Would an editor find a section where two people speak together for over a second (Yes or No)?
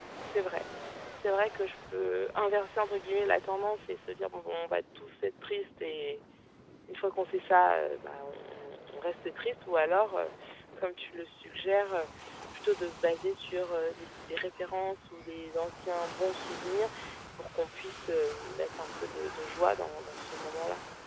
No